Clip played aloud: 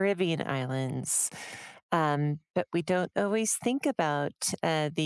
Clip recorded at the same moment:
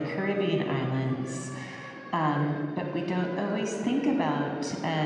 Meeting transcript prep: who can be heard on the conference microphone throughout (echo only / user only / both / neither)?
echo only